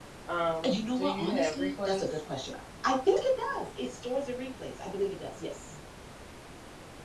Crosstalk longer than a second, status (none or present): present